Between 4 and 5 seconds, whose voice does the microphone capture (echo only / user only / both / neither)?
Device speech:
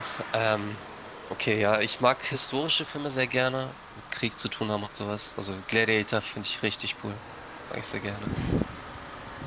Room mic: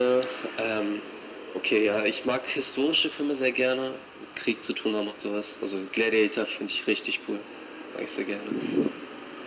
echo only